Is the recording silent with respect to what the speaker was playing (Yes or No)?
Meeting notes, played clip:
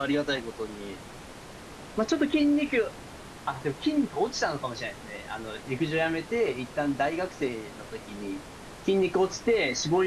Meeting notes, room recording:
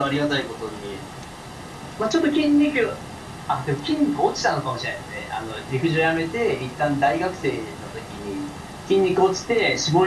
No